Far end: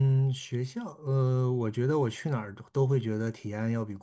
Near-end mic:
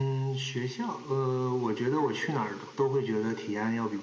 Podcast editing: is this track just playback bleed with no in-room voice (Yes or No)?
Yes